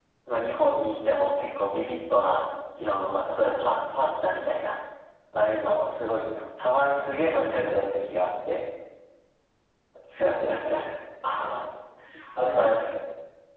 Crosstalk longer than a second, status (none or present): none